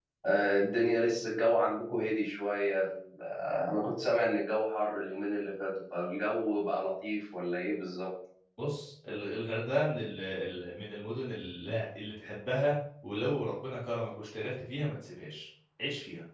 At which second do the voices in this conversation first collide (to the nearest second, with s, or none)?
none